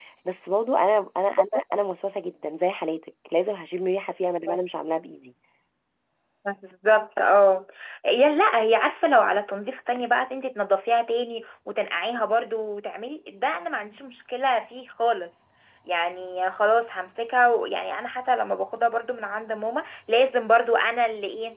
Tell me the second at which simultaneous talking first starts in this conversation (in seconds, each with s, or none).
none